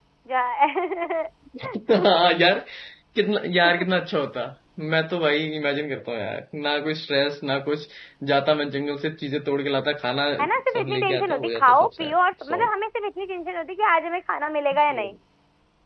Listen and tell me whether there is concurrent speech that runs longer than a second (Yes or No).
Yes